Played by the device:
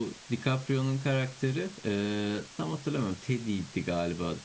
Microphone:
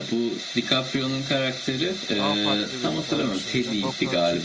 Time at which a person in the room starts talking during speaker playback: 2.2 s

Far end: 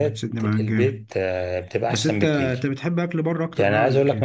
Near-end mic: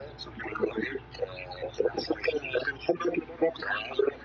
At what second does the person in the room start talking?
none

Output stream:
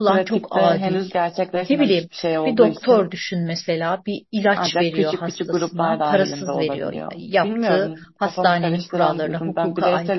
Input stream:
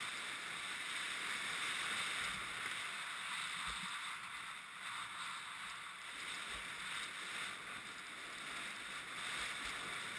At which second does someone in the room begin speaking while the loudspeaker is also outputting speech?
none

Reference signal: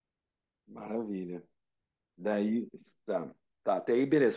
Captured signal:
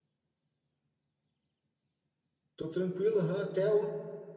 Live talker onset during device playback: 2.5 s

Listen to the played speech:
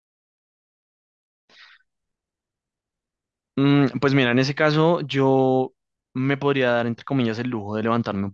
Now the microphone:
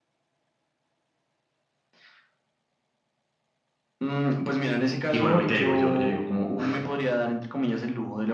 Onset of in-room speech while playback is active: 5.1 s

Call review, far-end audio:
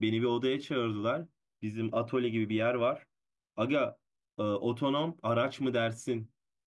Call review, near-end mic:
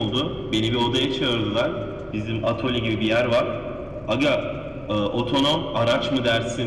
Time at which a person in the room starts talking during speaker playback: none

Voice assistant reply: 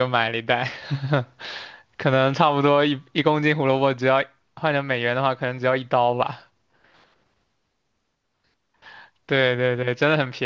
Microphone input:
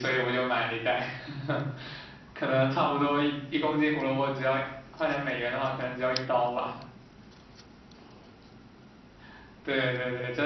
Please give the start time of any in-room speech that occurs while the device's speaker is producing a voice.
none

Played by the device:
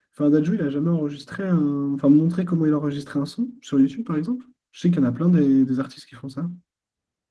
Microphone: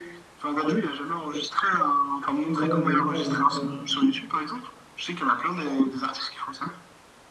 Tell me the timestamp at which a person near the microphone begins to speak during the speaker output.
2.5 s

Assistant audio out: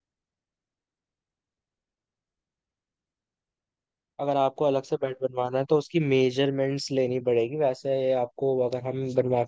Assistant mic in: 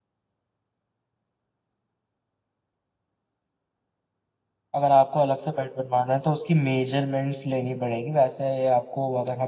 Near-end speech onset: none

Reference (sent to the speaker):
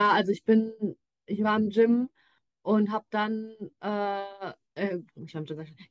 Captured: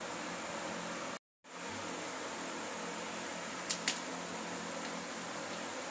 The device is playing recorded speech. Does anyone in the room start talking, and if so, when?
none

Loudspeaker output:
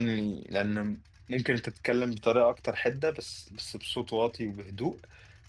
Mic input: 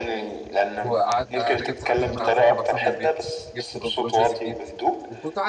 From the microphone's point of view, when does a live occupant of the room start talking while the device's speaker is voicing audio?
0.8 s

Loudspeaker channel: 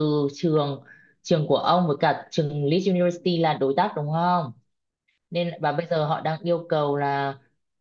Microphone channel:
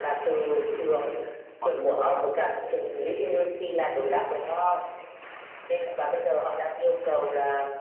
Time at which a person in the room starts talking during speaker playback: 1.6 s

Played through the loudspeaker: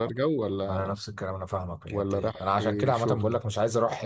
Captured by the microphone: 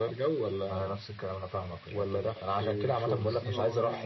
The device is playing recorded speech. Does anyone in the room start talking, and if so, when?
3.1 s

